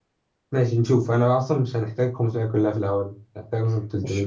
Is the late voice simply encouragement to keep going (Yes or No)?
No